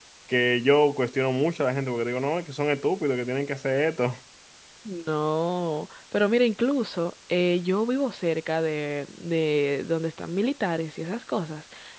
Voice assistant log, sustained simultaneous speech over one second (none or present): none